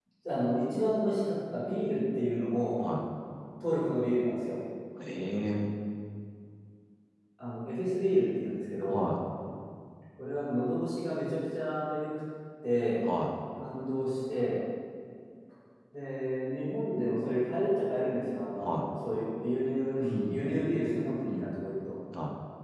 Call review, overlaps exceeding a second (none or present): none